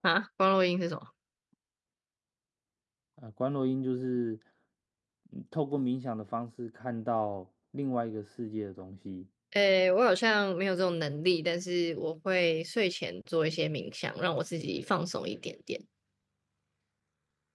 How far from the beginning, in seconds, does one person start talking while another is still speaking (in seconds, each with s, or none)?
none